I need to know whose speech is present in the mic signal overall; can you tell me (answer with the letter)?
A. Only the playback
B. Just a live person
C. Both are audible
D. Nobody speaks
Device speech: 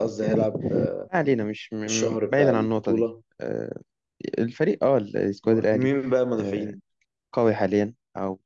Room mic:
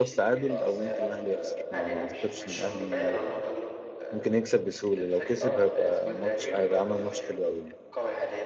C